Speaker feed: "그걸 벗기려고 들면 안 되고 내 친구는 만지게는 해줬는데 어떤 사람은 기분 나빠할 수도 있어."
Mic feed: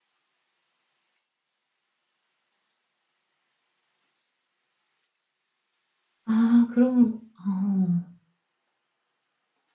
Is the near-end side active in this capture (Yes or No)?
Yes